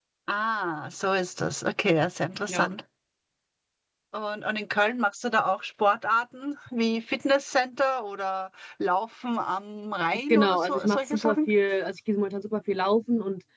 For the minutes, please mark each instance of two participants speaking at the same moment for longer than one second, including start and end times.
10.3-11.5

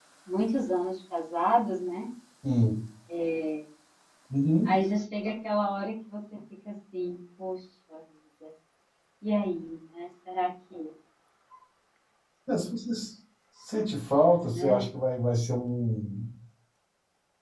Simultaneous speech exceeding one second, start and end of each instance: none

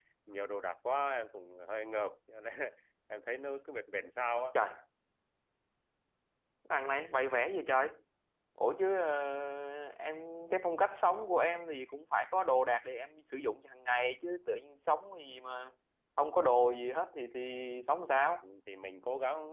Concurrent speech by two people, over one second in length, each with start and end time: none

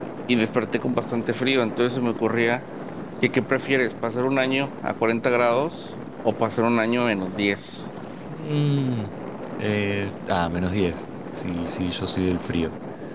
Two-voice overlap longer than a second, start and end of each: none

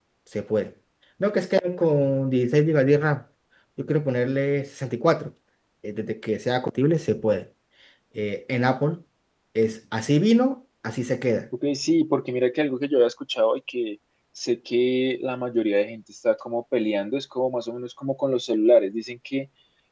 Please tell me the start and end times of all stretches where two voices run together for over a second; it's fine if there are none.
none

